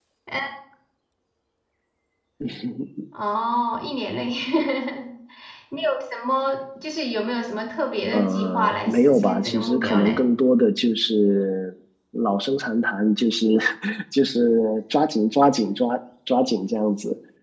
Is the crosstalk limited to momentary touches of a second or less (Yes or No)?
No